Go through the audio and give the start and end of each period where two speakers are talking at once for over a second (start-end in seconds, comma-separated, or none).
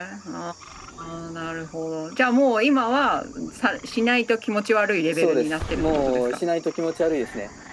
5.1-6.4